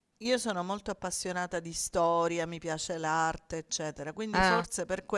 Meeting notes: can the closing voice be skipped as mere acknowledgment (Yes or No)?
Yes